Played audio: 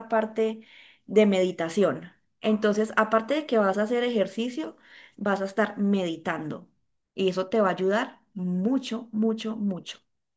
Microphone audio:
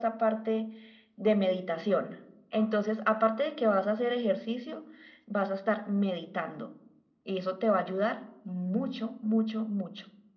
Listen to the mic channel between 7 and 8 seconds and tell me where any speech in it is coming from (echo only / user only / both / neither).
echo only